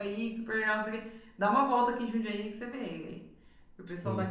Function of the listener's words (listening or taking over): listening